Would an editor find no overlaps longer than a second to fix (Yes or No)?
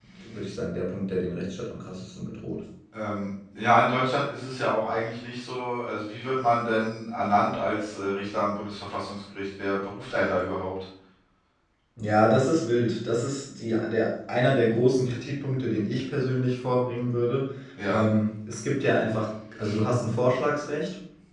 Yes